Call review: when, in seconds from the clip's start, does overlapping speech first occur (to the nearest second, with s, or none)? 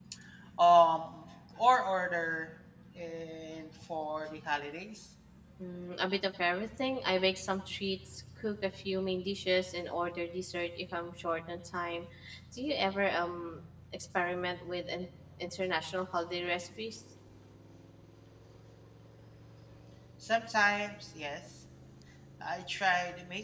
none